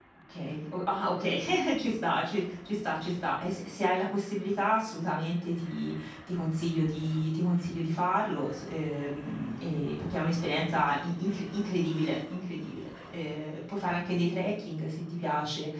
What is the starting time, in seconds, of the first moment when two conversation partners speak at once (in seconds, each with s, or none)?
none